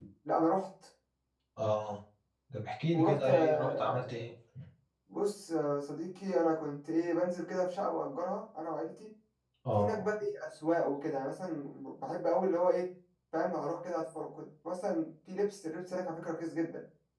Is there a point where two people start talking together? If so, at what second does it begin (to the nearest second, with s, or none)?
3 s